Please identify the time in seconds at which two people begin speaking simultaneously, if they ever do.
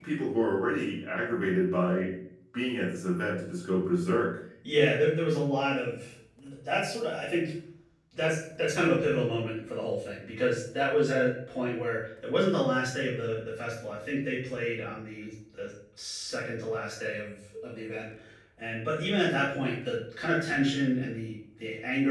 none

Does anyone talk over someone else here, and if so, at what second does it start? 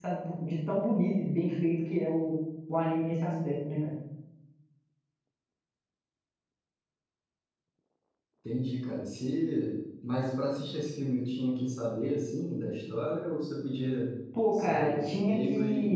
14.3 s

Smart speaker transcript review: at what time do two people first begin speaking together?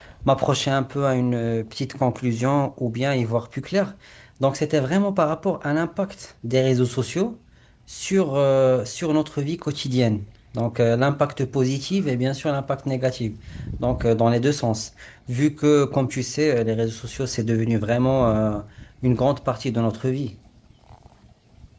none

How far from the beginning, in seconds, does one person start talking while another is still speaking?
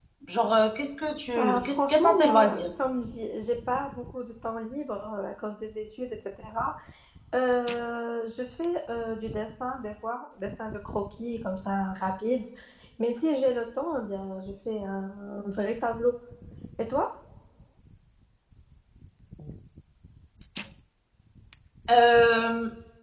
1.4 s

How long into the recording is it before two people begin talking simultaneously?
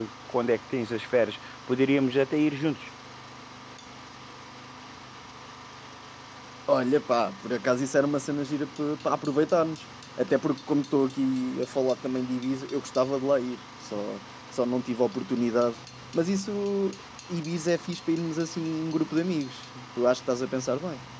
none

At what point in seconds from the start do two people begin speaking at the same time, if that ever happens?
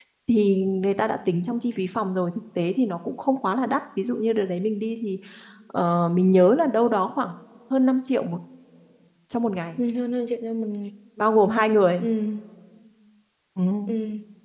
none

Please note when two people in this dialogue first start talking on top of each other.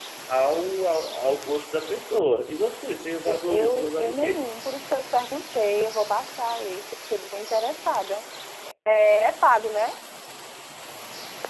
3.3 s

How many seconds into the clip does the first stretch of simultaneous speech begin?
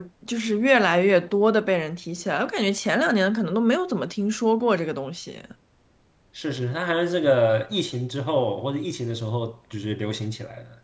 none

